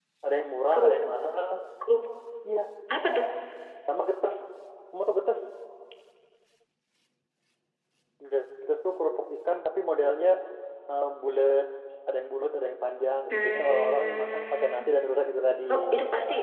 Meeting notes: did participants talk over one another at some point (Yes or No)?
Yes